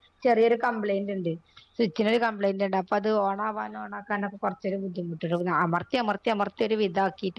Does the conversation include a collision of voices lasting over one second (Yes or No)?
No